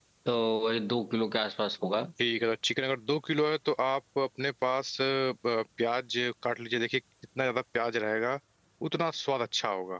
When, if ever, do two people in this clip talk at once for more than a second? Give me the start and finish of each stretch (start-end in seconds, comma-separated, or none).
none